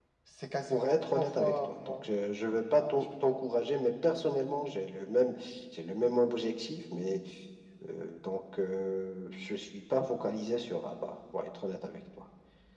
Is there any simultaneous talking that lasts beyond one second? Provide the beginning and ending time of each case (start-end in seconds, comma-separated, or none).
0.7-2.0